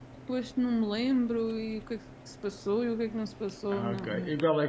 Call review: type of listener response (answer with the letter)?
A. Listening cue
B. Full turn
B